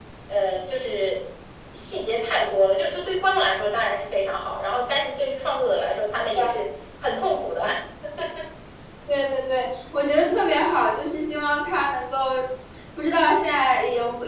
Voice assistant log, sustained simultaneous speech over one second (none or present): none